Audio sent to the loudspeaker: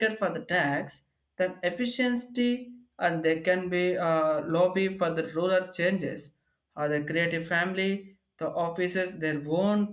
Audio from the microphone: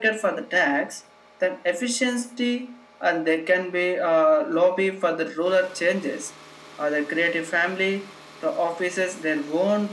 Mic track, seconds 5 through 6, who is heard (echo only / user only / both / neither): echo only